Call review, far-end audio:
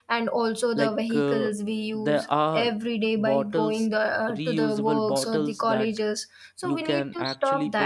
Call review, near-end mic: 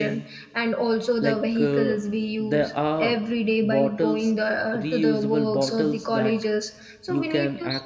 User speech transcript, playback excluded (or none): none